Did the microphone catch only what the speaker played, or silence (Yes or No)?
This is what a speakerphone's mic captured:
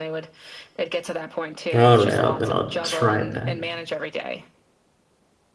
No